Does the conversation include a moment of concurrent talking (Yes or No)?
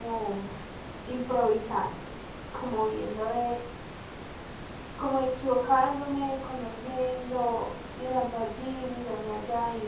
No